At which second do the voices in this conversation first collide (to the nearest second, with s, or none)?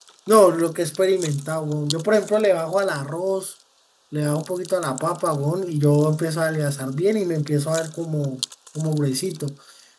none